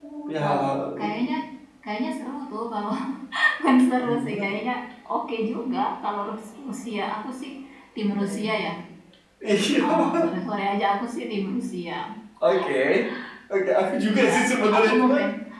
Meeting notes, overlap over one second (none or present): none